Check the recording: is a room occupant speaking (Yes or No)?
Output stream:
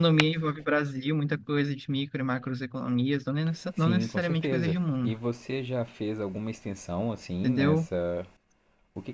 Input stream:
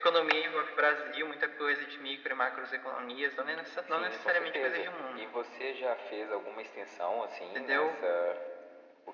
No